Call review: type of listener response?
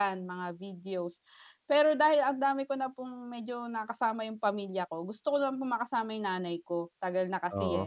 listening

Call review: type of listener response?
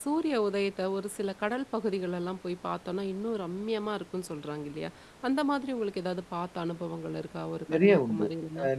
taking over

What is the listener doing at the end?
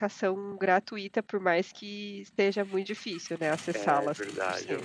taking over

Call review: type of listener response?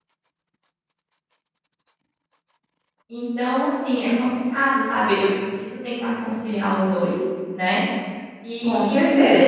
listening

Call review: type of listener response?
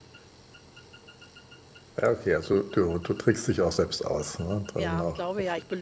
taking over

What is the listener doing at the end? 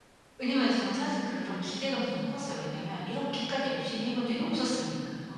taking over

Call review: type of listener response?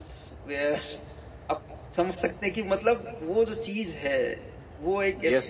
taking over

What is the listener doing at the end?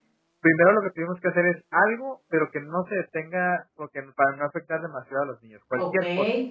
taking over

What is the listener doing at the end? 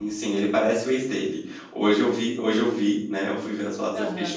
listening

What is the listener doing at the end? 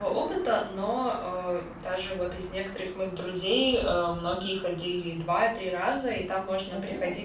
listening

